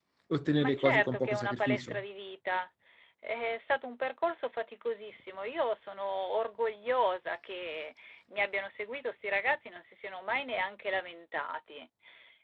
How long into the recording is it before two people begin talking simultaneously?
0.6 s

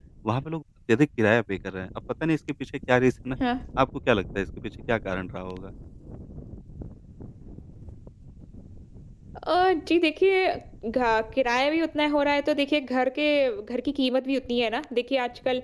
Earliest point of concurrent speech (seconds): none

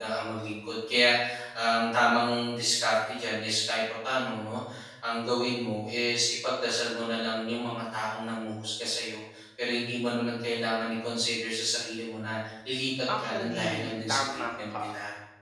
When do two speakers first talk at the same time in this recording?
13.1 s

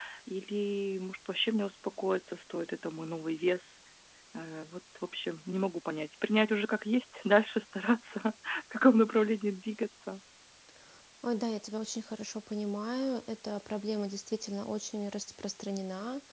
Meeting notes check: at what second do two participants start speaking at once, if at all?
none

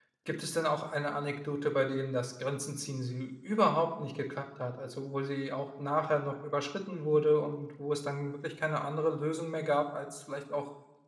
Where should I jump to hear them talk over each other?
none

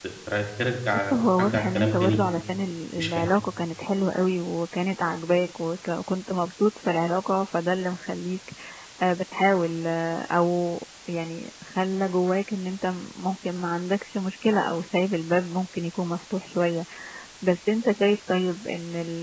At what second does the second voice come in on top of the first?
0.9 s

